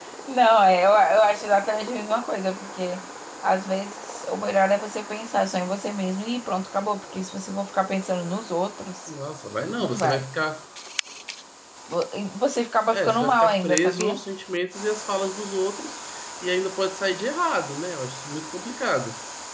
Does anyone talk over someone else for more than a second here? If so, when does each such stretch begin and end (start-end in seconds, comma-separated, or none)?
12.9-14.1